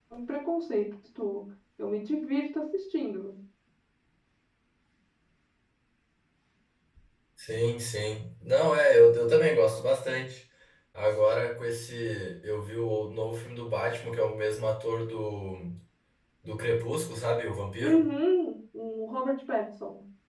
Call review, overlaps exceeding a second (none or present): none